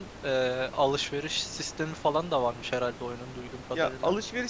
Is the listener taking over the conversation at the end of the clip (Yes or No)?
Yes